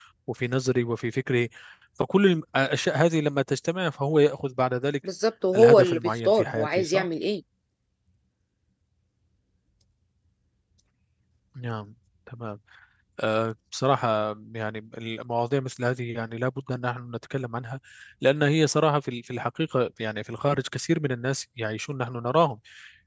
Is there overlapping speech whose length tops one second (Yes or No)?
Yes